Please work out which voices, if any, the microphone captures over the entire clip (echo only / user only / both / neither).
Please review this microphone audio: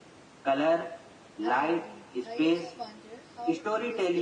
both